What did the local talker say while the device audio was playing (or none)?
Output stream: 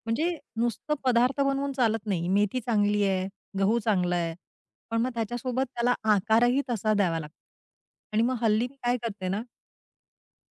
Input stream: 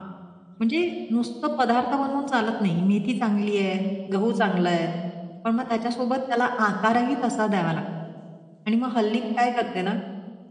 none